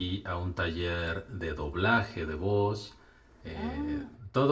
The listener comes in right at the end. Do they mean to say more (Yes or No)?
No